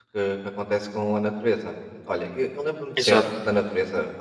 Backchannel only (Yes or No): Yes